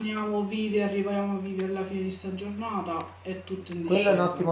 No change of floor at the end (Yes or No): No